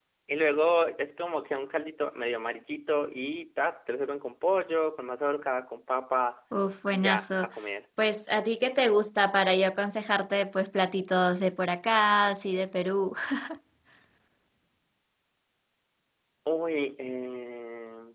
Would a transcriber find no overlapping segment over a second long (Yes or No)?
Yes